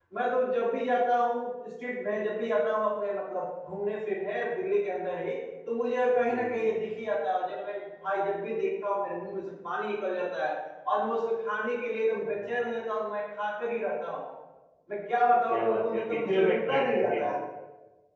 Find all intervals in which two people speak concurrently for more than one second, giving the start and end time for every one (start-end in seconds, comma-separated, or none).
15.5-17.3